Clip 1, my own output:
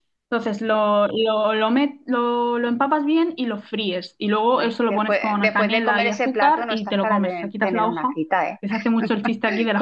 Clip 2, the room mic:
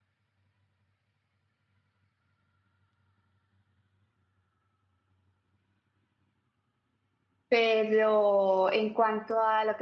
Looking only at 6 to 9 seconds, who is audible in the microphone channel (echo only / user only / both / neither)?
user only